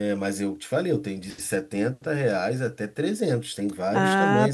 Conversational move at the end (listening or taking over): taking over